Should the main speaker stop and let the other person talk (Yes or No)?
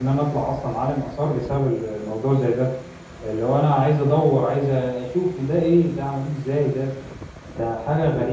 Yes